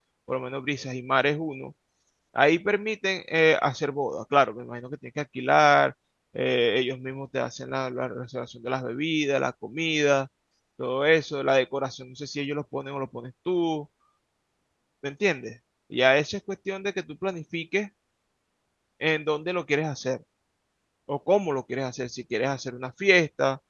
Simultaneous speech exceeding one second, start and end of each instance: none

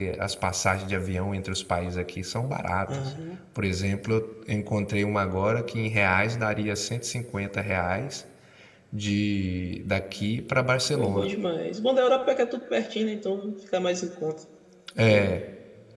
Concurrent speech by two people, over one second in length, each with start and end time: none

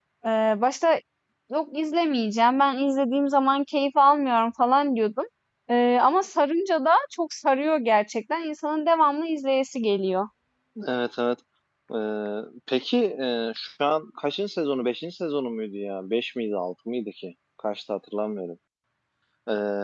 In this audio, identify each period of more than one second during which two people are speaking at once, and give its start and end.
none

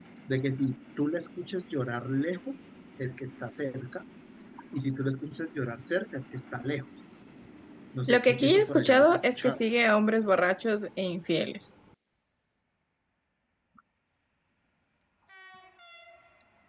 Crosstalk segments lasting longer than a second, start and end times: 8.1-9.6

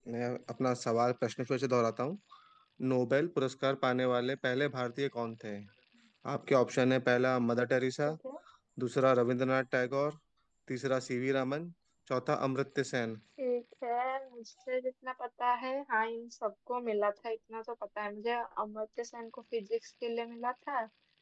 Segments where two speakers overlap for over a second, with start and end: none

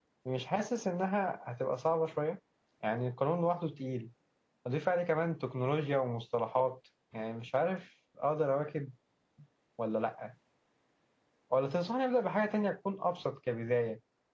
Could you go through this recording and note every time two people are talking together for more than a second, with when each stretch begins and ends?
none

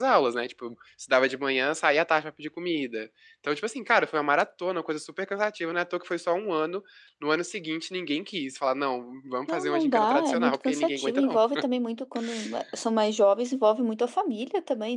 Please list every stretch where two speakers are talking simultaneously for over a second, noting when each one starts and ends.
9.5-11.4

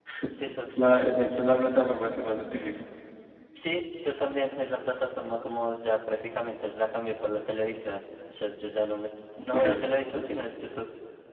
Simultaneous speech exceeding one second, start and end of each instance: none

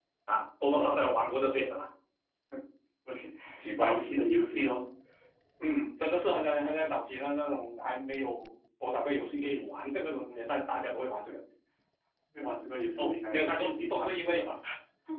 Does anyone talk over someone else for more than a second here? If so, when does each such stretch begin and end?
13.0-14.4

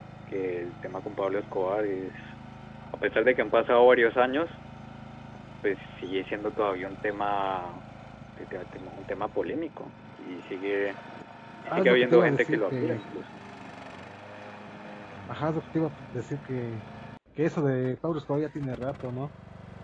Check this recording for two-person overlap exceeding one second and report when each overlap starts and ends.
11.7-13.0

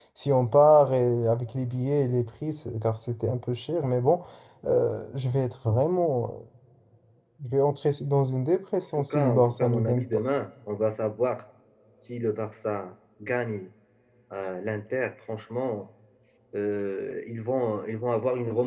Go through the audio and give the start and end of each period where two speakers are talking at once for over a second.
9.0-10.2

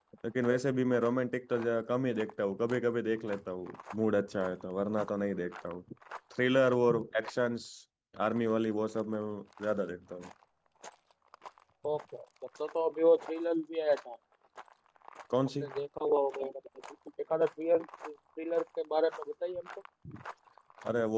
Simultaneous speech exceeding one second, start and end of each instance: none

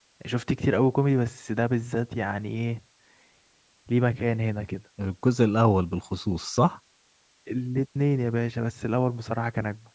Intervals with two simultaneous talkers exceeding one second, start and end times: none

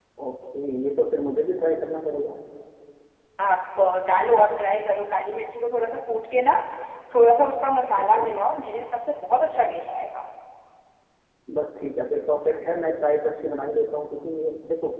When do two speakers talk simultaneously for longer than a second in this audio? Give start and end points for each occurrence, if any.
none

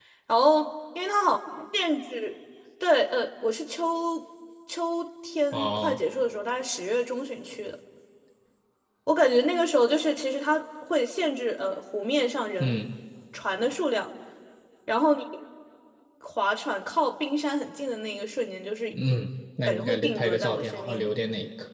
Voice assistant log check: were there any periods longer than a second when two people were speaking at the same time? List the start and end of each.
19.6-21.1

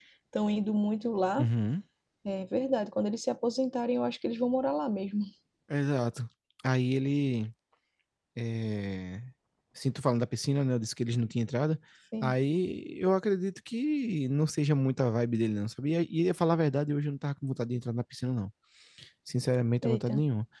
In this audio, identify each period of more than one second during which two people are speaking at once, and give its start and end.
none

